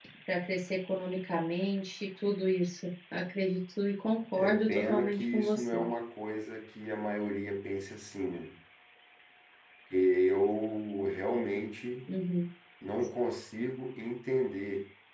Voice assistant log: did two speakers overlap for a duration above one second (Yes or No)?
Yes